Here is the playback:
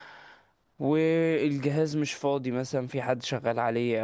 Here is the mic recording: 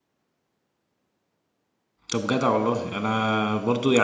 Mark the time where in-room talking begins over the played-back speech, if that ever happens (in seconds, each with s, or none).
2.1 s